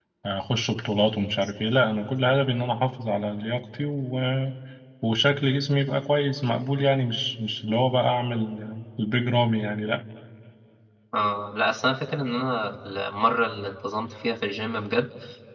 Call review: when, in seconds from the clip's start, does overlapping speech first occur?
none

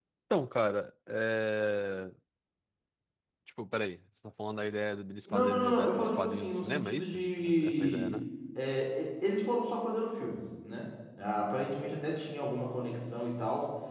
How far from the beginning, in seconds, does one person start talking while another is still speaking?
5 s

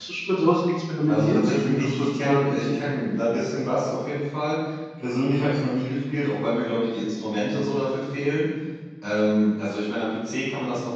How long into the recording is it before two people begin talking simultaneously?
1 s

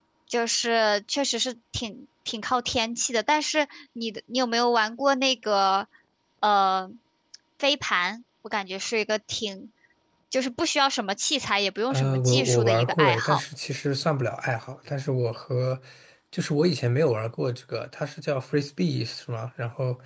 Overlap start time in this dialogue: 12 s

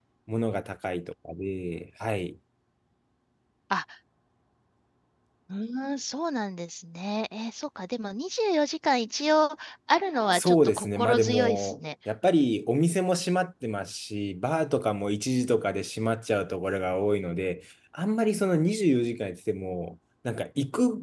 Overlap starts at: 10 s

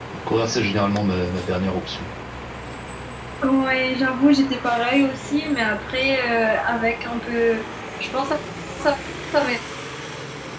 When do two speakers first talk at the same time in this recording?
none

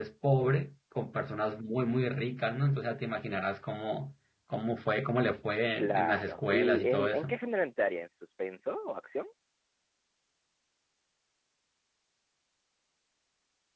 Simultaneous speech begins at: 6 s

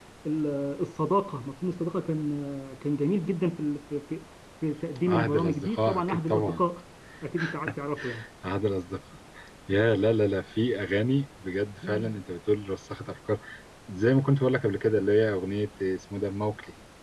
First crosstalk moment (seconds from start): 5 s

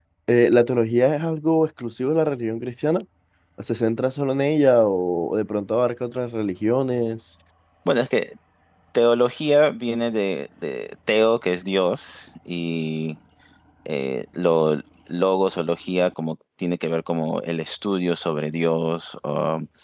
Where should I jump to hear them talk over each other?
none

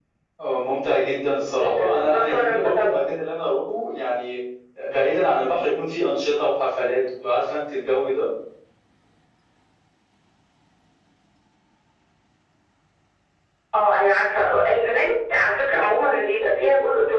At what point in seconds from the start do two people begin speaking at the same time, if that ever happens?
2 s

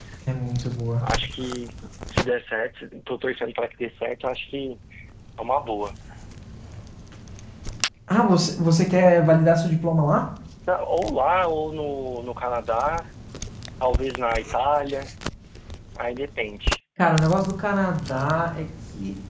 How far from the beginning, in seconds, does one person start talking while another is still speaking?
none

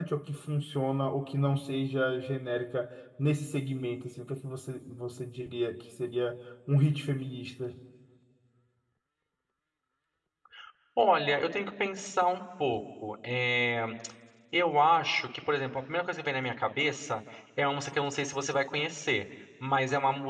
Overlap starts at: none

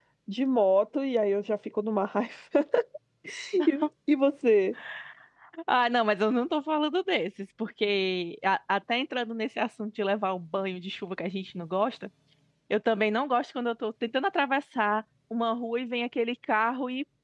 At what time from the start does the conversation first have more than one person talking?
none

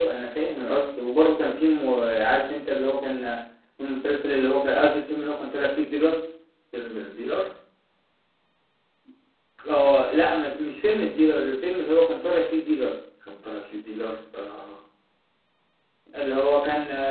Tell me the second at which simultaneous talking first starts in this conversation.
none

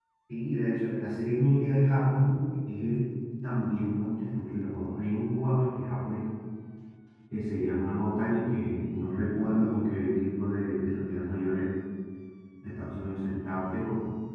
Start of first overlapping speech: none

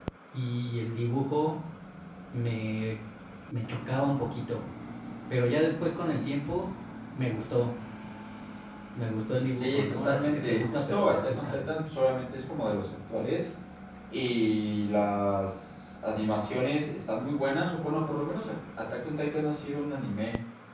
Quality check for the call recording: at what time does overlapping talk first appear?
10 s

